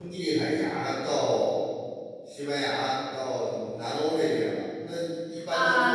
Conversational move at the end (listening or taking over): taking over